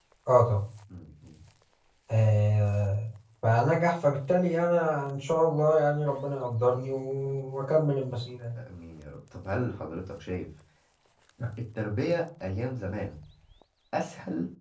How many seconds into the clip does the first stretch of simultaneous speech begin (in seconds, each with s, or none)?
none